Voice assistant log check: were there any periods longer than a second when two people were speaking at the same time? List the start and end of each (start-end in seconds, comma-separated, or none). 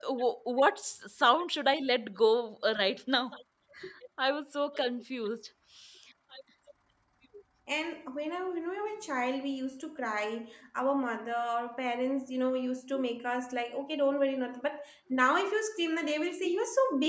none